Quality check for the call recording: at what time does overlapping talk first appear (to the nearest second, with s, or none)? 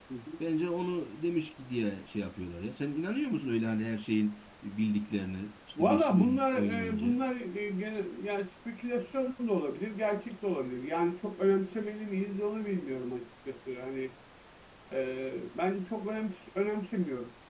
6 s